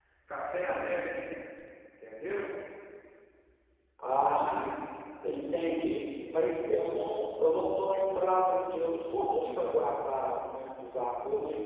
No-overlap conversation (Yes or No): Yes